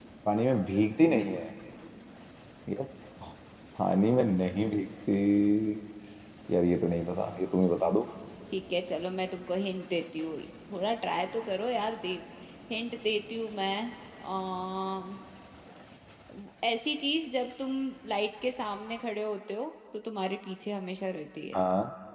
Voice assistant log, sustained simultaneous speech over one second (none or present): none